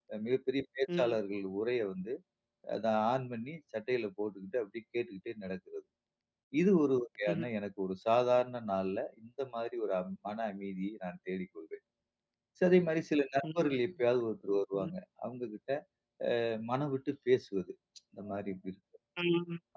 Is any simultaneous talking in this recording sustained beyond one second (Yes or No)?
No